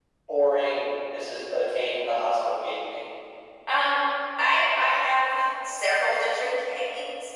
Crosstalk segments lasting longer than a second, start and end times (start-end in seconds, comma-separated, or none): none